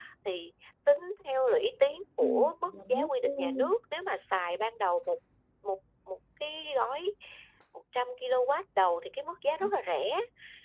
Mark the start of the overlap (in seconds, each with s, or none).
2.2 s